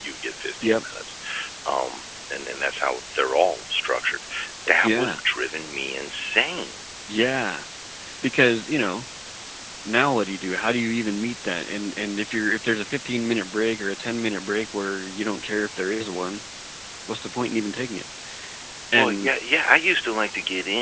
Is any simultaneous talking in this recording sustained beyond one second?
No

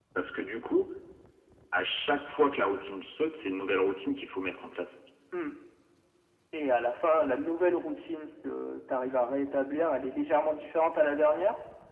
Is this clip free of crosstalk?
Yes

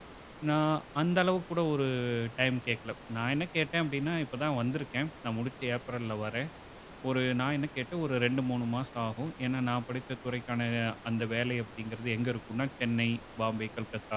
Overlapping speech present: No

